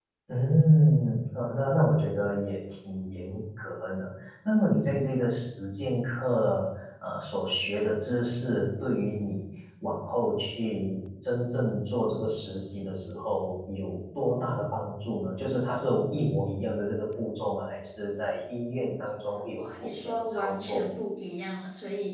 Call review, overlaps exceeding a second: present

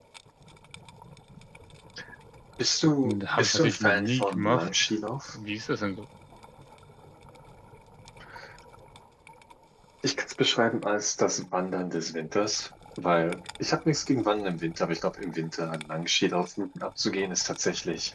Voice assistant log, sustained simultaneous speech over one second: present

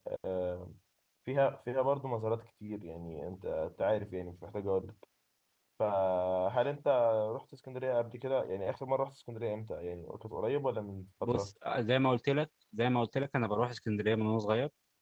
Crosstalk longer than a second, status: none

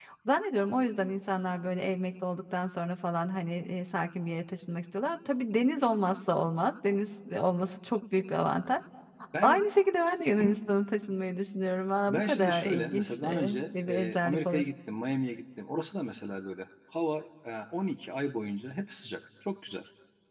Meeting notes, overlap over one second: present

